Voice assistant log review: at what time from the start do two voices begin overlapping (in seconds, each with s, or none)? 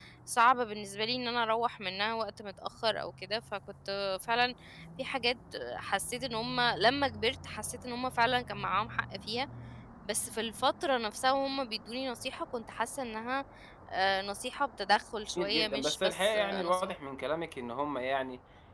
15.3 s